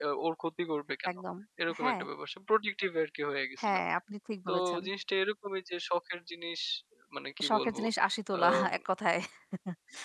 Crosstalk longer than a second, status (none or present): none